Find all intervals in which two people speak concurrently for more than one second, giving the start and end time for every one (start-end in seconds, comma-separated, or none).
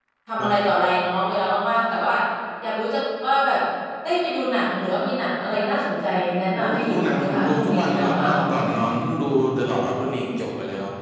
6.6-8.3